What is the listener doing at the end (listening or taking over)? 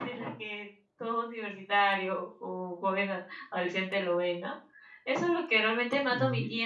listening